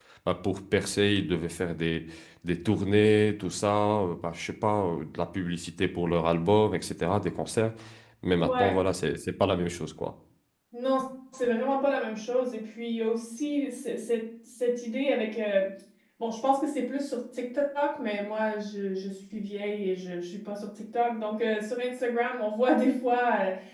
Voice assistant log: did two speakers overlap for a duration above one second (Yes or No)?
No